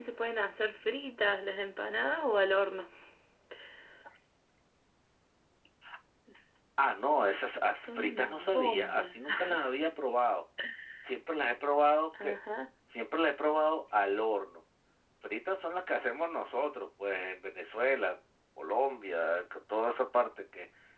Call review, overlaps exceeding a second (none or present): present